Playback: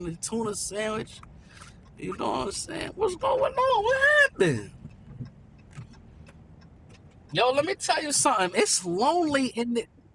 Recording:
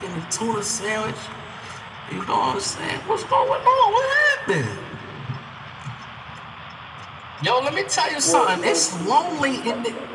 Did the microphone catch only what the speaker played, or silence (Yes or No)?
No